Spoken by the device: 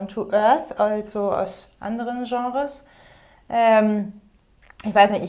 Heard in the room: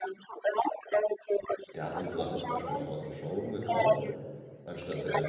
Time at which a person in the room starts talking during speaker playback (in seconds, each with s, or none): 1.7 s